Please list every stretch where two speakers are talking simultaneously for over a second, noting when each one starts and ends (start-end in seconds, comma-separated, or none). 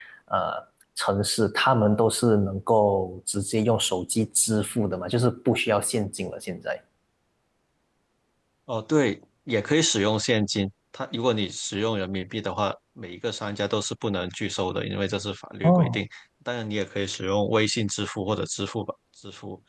none